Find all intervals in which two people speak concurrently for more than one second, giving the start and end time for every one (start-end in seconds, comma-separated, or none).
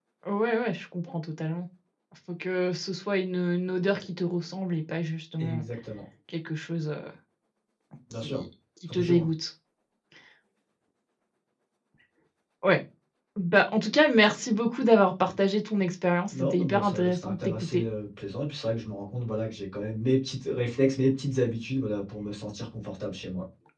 16.3-17.8